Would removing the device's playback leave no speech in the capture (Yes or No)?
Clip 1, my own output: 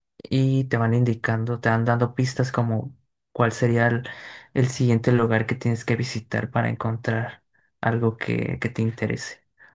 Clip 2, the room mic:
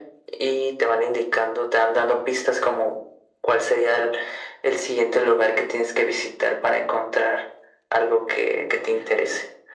Yes